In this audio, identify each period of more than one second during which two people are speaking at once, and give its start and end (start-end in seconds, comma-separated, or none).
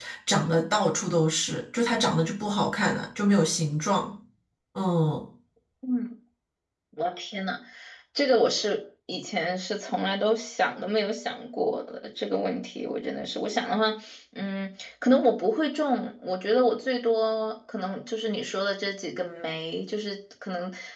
none